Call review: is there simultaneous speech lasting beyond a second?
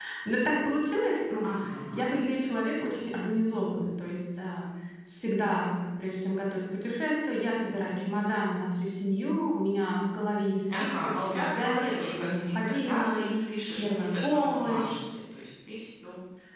Yes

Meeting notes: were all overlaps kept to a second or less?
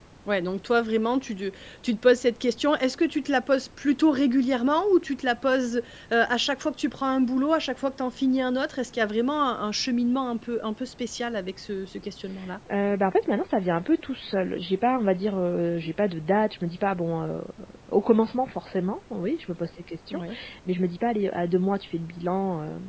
Yes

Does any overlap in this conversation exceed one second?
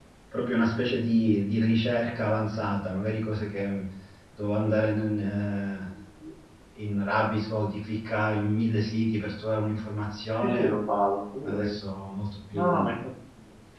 No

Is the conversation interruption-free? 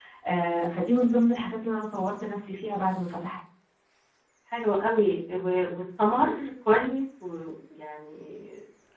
Yes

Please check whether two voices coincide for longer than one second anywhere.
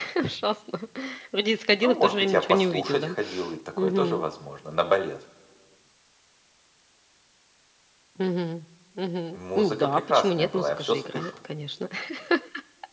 Yes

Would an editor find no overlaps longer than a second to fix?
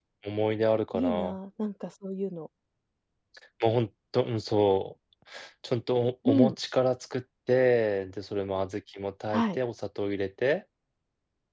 Yes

